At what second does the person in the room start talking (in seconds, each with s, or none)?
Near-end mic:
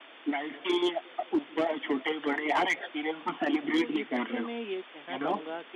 3.7 s